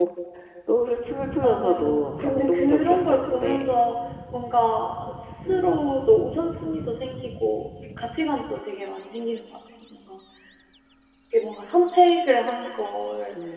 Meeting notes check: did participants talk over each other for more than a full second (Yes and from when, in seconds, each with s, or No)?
Yes, from 1.4 s